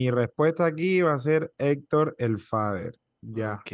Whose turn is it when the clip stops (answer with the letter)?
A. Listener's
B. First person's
A